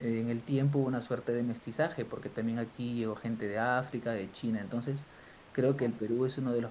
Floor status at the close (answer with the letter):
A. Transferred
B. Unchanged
B